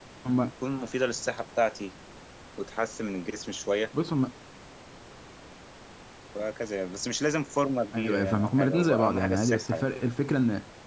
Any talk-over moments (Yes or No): Yes